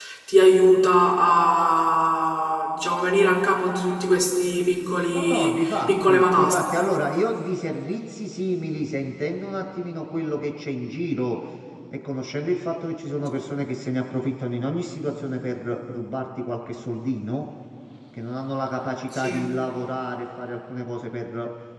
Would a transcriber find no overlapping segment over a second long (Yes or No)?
No